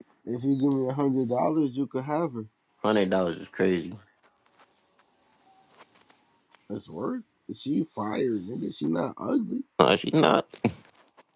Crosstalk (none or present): none